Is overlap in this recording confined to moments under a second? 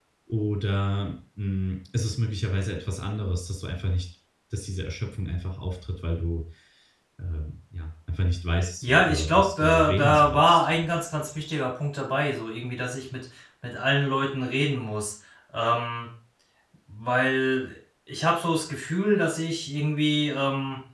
No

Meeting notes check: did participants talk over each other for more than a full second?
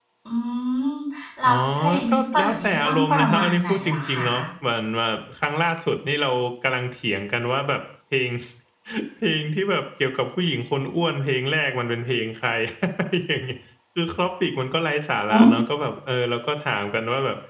Yes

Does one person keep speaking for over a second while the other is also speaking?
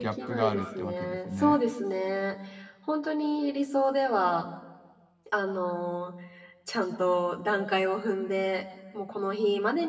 Yes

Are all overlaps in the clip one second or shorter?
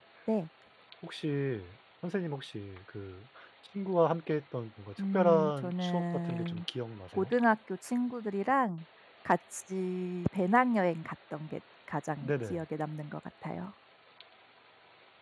No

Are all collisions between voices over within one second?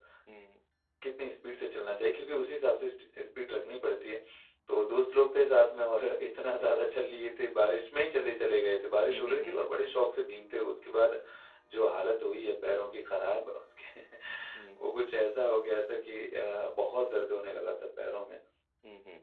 Yes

